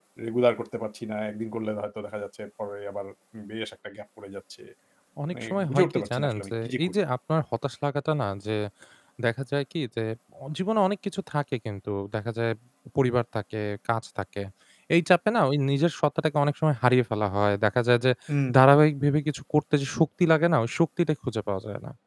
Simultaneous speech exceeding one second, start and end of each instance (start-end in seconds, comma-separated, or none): 5.3-7.0